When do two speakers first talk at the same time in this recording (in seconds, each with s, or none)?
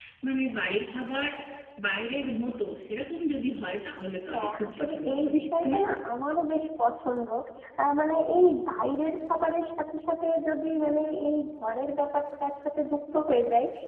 4.3 s